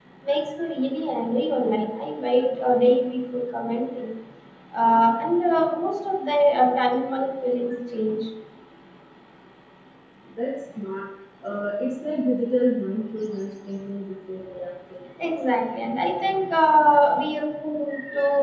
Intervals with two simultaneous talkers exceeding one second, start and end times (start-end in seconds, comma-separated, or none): none